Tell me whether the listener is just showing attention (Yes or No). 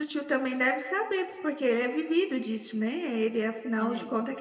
Yes